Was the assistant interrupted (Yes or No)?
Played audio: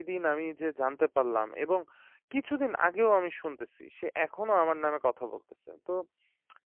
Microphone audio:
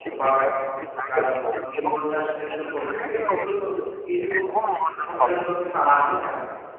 Yes